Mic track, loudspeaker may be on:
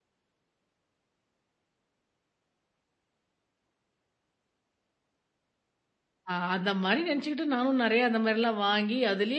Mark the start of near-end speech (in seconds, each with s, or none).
6.3 s